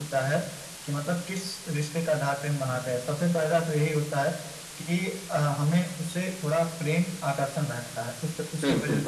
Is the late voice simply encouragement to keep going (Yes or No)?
Yes